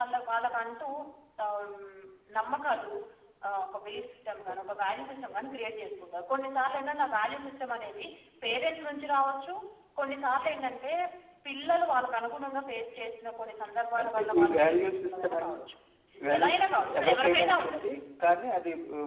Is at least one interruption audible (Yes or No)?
Yes